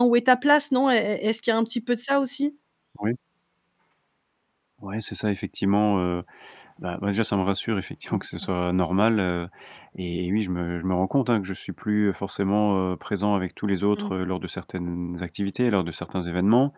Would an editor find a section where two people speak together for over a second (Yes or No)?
No